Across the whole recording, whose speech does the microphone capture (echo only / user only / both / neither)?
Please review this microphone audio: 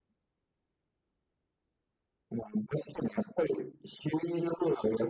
echo only